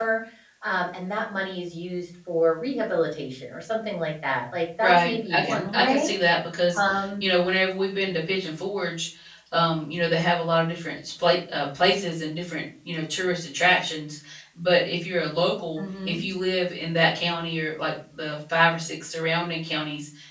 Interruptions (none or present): present